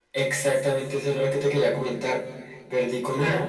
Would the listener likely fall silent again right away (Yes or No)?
Yes